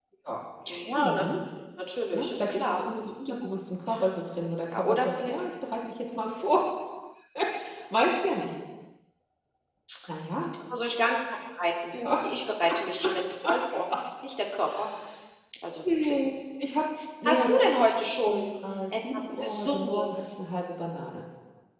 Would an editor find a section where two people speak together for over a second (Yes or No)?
Yes